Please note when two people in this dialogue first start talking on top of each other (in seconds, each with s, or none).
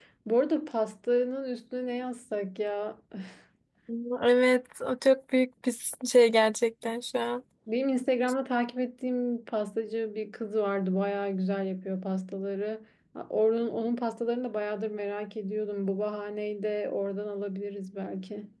none